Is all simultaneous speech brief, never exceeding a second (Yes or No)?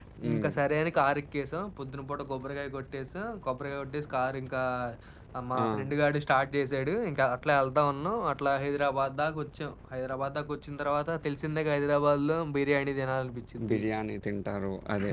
Yes